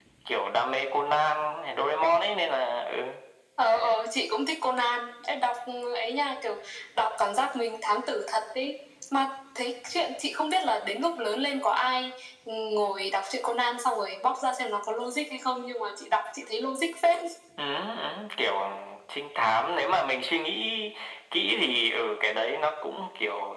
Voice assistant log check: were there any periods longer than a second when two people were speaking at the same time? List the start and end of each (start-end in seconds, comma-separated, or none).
none